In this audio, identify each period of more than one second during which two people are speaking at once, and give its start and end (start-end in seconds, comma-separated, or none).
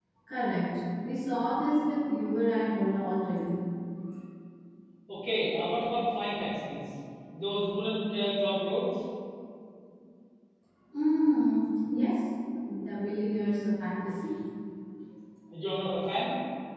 none